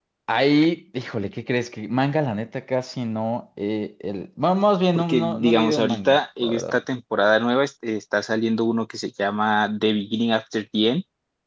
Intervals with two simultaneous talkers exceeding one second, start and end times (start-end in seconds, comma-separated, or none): 5.0-6.8